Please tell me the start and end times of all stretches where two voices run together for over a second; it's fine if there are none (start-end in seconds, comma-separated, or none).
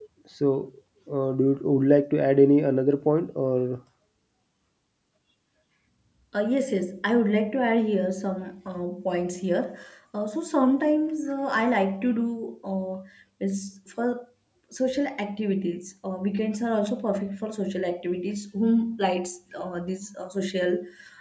none